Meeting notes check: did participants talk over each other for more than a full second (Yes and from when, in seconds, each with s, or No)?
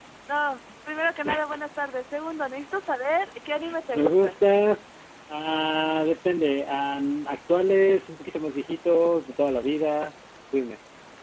No